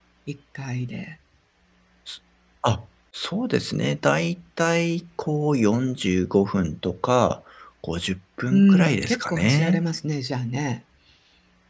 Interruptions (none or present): present